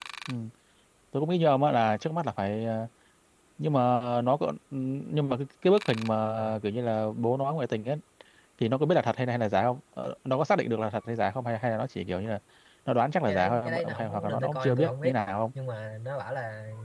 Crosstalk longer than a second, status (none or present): present